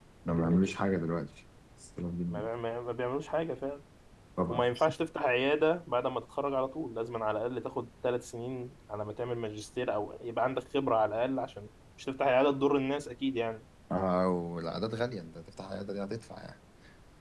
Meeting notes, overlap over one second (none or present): none